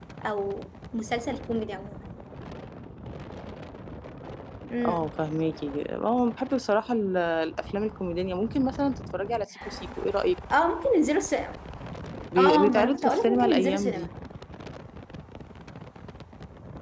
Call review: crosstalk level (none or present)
present